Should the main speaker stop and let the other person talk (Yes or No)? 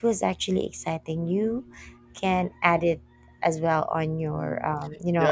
Yes